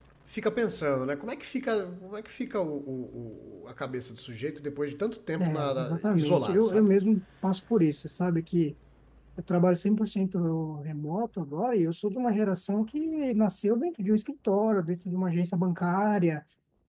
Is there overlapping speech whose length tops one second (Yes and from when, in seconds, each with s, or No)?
Yes, from 5.4 s